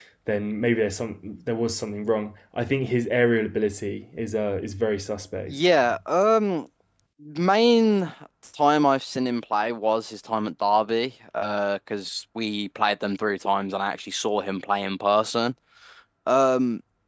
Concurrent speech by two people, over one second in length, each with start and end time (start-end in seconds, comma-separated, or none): none